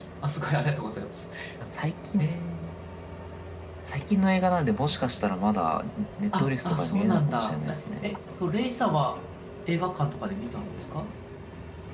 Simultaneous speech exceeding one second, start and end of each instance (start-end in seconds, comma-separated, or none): 6.4-8.0